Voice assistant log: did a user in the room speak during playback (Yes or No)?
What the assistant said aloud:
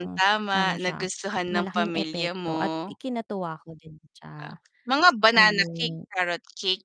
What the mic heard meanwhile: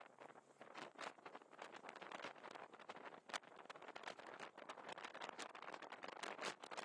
No